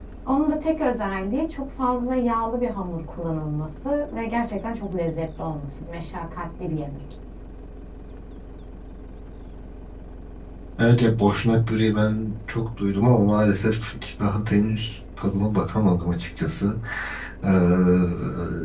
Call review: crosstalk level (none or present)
none